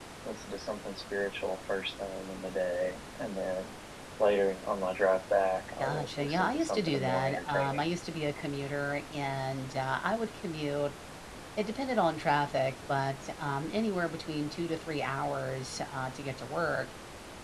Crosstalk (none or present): present